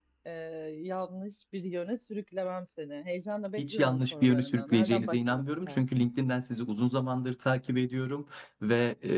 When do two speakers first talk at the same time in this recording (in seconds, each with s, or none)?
3.6 s